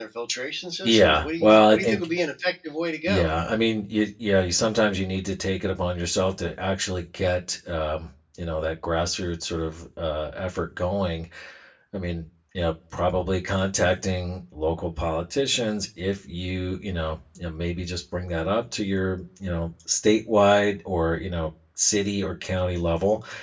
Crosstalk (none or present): present